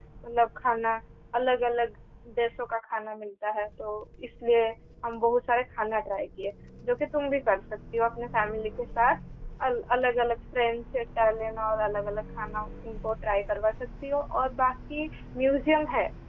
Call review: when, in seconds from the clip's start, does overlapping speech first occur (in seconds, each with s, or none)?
none